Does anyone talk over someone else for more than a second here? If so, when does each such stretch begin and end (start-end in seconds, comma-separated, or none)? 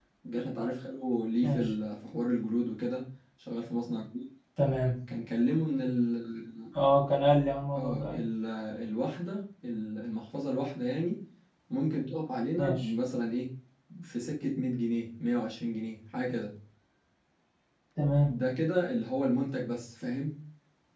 none